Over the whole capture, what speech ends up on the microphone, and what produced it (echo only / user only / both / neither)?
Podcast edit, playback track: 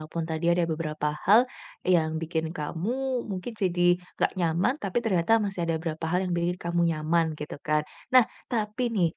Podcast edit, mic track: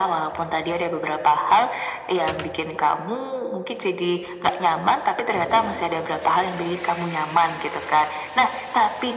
echo only